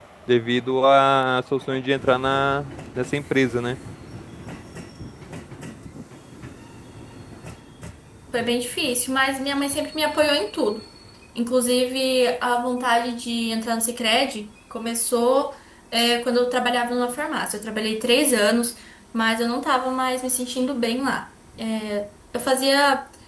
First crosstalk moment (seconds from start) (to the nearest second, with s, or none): none